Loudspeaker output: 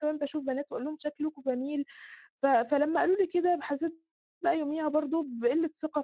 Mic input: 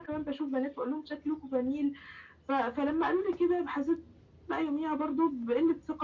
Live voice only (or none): none